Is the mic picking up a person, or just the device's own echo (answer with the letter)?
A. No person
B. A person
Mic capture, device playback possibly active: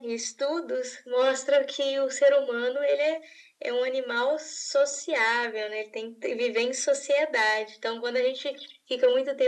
A